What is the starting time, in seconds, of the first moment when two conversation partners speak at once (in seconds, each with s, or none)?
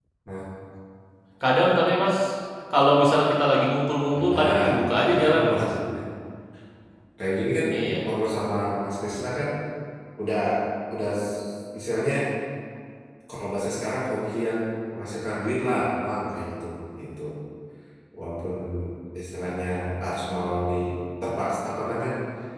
4.1 s